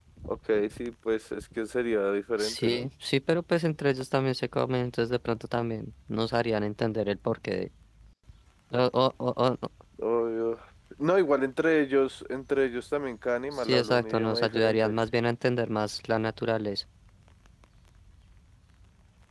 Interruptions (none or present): present